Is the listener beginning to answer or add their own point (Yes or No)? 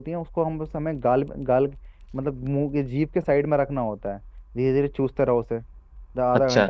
No